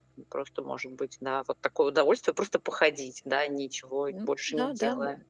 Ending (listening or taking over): taking over